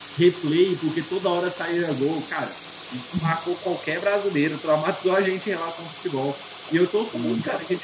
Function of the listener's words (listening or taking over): listening